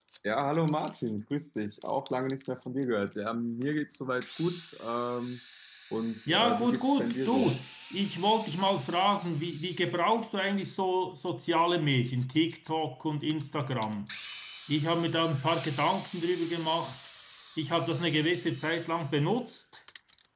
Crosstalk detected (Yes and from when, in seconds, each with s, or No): Yes, from 6.3 s